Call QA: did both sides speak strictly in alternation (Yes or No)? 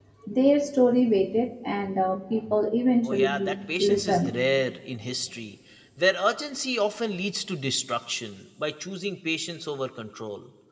No